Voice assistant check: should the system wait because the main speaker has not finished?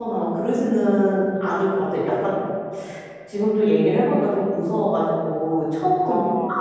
Yes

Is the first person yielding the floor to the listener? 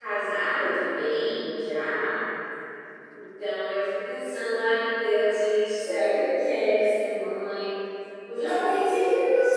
Yes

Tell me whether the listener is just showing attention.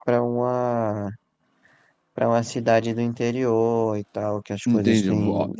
No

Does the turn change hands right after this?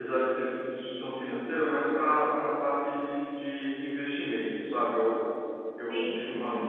No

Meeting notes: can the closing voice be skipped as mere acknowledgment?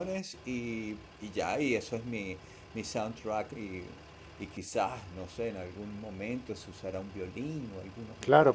No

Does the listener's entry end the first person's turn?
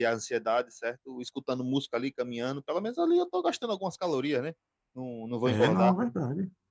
Yes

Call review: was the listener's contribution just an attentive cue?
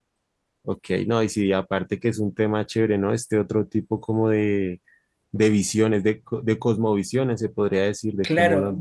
No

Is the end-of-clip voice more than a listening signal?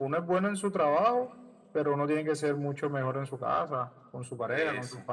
Yes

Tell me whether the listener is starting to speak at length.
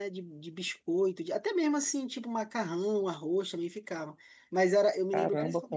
Yes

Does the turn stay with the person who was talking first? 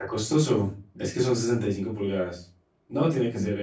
Yes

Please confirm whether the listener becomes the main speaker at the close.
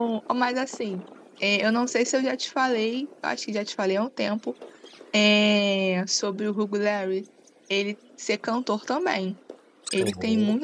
No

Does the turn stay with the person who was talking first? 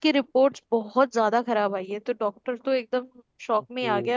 Yes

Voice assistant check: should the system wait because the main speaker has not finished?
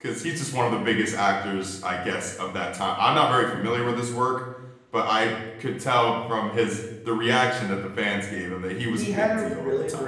No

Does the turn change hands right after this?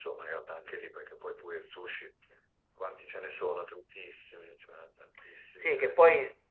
Yes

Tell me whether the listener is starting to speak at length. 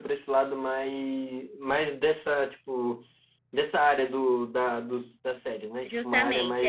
Yes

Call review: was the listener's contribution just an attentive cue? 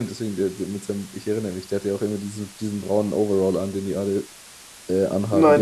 No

